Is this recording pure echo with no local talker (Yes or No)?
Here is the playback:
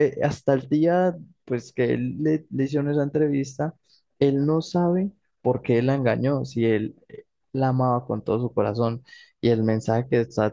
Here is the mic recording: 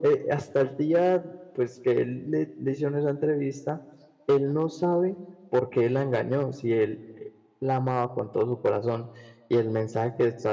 Yes